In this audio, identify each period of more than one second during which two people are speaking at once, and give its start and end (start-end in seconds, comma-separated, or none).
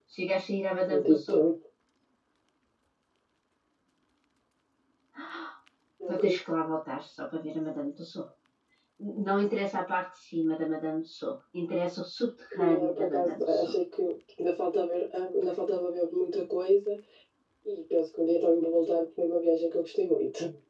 12.5-13.8